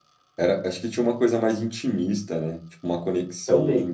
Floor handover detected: No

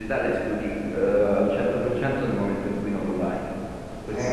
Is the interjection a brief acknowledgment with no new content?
No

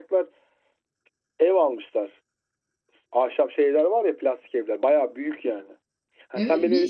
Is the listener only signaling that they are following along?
No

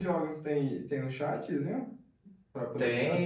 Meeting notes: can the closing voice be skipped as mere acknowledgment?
No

